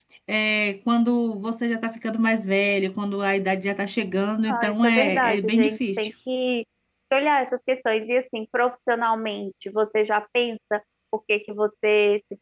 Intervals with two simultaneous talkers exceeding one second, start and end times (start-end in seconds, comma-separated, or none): 4.5-6.1